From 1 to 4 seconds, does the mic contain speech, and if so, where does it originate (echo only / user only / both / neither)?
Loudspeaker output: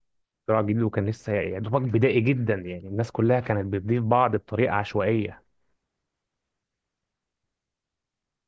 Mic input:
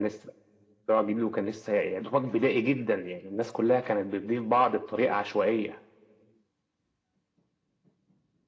echo only